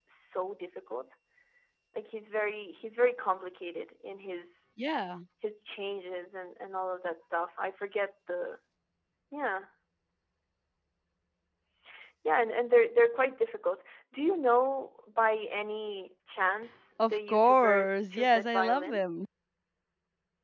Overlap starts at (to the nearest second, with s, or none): 17 s